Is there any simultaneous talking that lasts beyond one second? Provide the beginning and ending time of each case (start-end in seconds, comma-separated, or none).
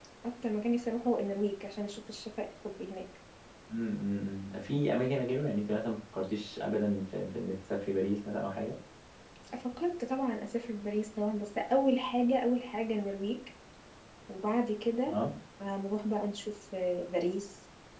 none